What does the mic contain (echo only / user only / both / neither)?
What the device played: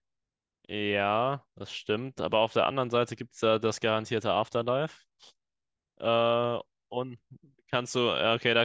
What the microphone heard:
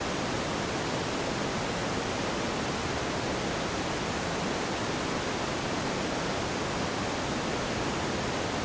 neither